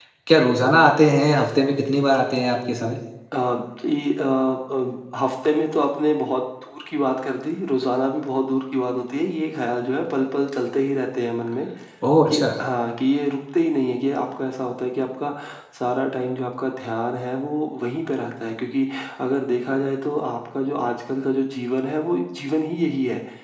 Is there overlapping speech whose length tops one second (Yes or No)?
No